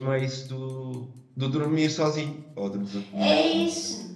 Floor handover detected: Yes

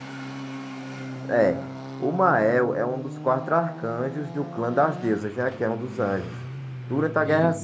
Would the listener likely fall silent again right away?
Yes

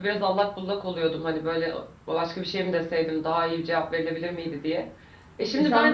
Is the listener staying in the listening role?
No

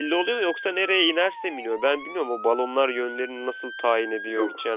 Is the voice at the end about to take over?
No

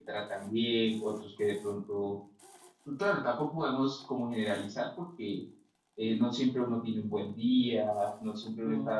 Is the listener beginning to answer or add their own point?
No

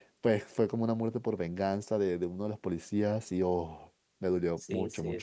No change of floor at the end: No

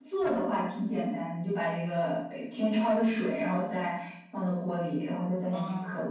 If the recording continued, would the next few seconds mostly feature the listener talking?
No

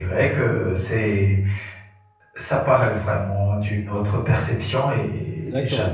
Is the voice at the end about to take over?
Yes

